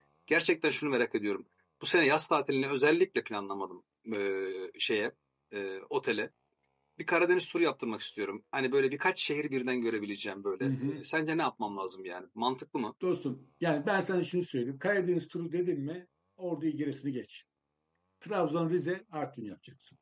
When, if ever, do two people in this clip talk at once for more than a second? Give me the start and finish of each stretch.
none

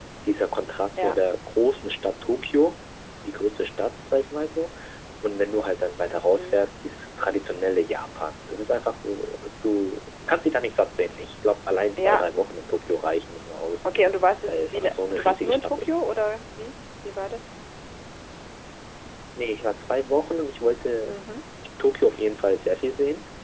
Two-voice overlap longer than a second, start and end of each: 14.5-15.9

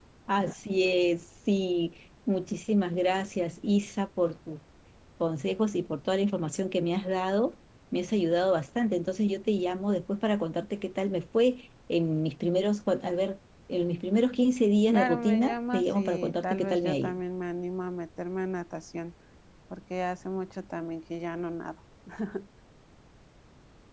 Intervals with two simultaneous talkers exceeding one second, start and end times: 14.9-17.2

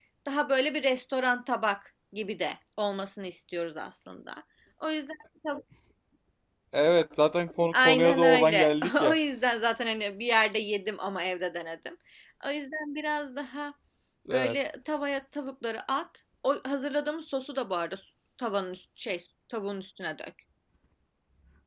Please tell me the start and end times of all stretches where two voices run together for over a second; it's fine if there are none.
7.7-9.2

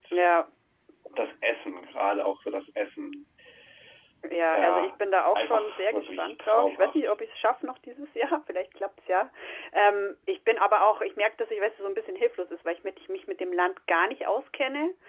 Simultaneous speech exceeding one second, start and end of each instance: 5.3-7.0

